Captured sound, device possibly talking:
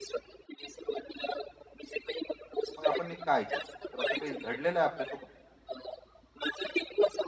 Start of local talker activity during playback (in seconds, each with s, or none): 2.8 s